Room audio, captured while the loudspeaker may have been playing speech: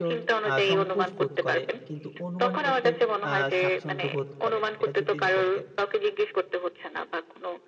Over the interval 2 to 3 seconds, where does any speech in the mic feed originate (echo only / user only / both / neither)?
both